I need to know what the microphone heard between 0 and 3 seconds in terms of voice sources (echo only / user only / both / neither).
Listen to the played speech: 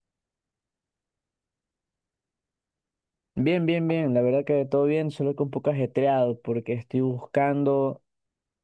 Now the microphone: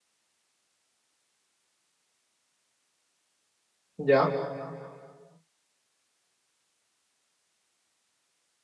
neither